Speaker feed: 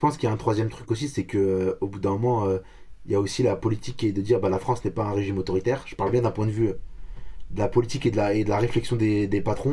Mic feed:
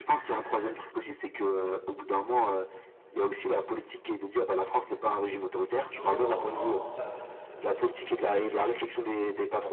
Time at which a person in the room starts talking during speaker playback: 6 s

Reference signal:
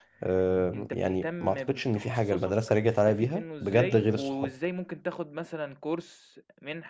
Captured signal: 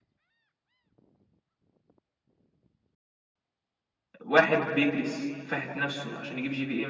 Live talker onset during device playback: 4 s

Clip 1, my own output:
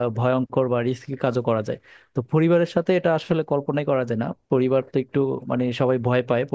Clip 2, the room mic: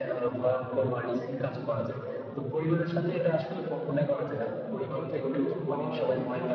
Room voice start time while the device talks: 5 s

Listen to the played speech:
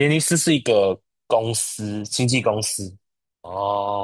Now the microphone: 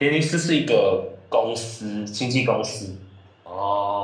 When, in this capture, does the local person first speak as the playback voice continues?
none

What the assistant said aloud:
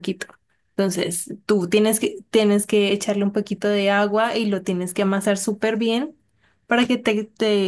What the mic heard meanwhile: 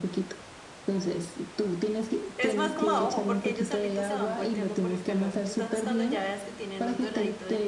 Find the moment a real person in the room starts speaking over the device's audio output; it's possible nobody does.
2 s

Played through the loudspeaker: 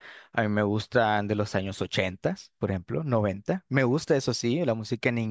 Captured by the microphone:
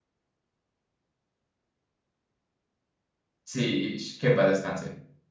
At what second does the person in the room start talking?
3 s

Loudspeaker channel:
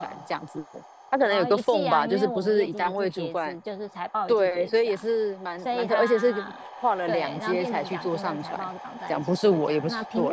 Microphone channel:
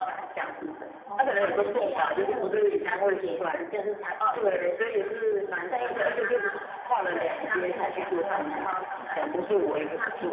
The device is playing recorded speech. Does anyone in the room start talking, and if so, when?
1 s

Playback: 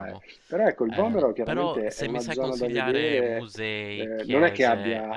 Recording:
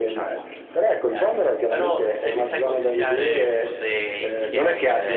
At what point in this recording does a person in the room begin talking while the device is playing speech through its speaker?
none

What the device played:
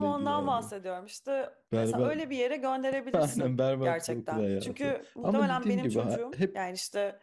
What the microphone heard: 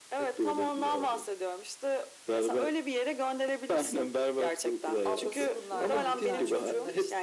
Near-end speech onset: 5 s

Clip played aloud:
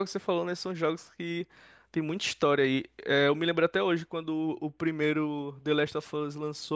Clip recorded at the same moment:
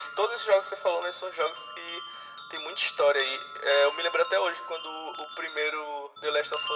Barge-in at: none

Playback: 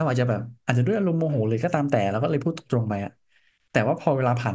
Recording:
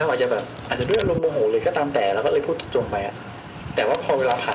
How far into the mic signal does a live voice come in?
none

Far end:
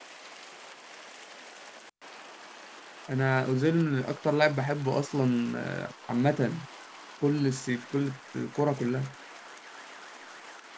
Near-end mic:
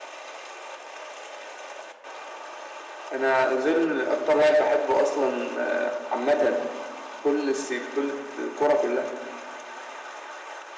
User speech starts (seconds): none

